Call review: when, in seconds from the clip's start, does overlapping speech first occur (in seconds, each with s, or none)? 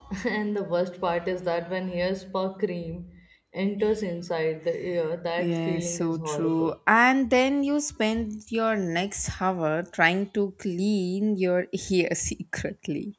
5.4 s